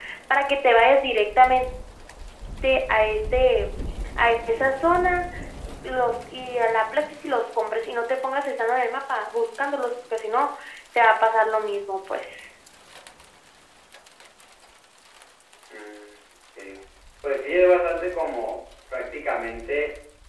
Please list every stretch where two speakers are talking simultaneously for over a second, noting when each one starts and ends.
none

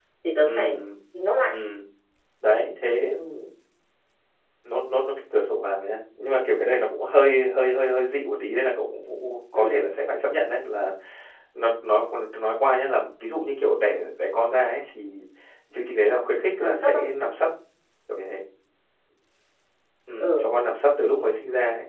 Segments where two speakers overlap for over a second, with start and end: none

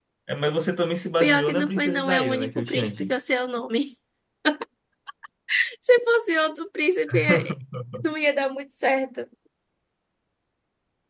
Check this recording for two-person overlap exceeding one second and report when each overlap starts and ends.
1.2-3.1

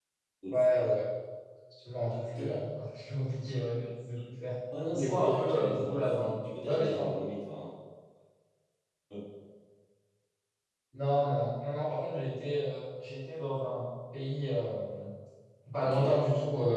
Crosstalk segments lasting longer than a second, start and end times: 4.9-7.1

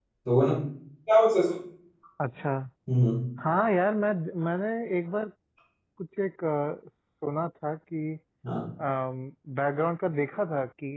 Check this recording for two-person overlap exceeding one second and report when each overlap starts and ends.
none

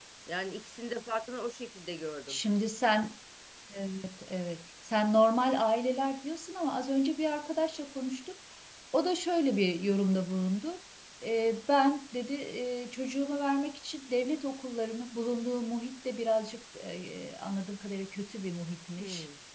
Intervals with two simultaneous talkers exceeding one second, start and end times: none

